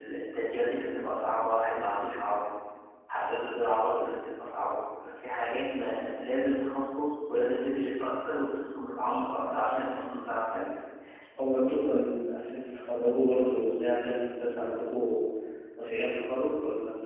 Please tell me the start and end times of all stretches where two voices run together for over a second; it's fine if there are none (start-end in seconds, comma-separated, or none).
none